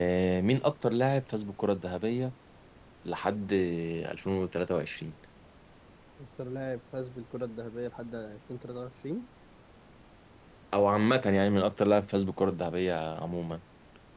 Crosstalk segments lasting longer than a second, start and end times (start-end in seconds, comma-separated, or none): none